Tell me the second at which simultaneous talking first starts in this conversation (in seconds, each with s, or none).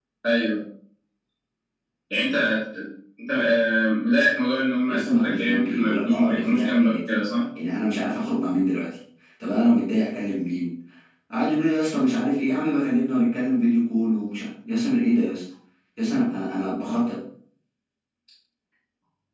4.9 s